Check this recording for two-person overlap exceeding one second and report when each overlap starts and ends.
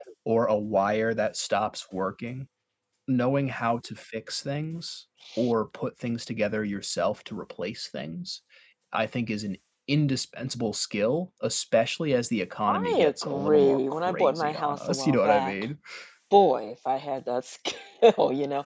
12.7-15.5

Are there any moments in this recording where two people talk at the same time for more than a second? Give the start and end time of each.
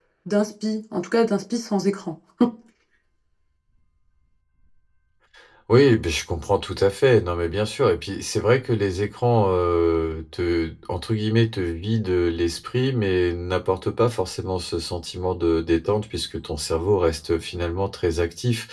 none

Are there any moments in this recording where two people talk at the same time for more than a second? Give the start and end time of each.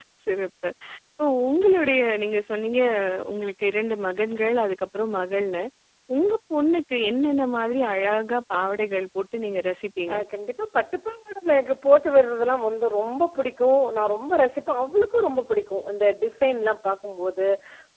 none

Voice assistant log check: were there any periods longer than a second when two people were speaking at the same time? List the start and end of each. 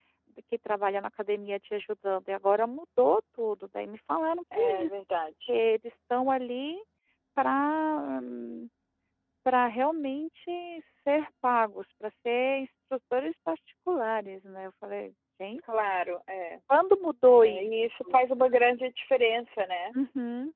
none

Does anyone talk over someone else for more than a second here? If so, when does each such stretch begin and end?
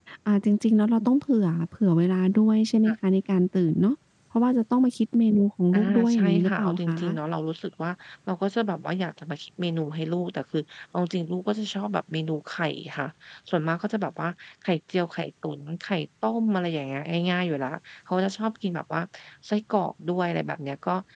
5.8-7.0

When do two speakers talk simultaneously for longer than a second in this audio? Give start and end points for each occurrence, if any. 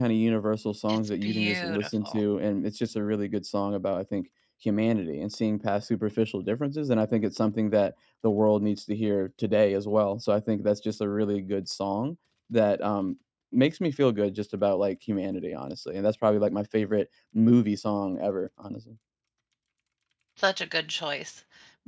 0.9-2.2

